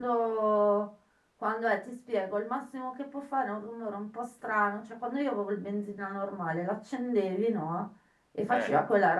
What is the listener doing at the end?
listening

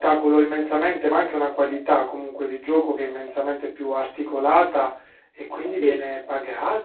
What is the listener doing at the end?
listening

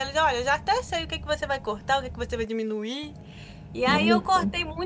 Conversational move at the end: listening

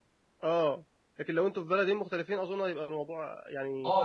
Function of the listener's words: taking over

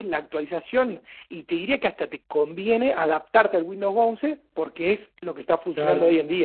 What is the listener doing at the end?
taking over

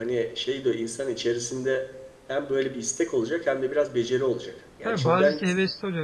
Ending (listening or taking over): taking over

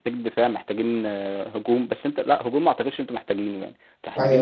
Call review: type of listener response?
taking over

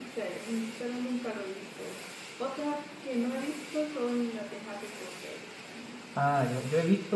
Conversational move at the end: taking over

